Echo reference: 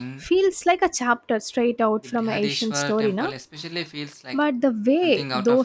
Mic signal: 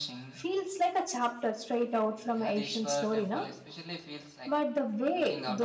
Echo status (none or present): present